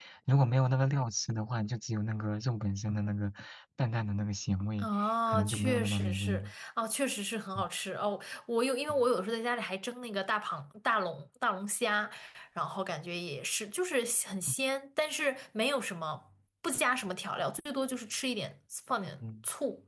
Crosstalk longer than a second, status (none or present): present